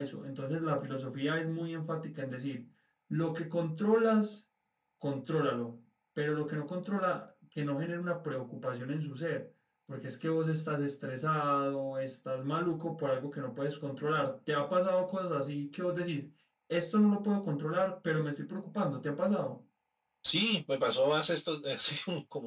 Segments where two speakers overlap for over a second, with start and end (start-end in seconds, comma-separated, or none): none